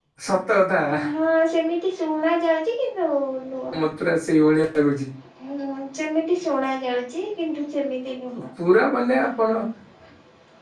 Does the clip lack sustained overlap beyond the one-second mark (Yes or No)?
Yes